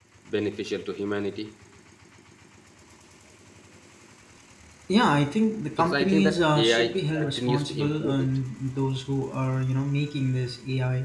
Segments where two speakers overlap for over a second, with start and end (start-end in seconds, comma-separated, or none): 5.8-8.3